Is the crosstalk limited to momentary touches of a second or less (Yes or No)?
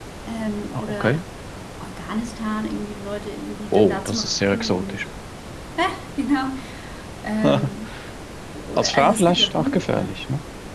No